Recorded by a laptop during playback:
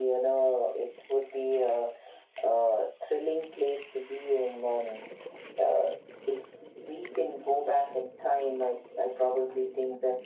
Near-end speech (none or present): none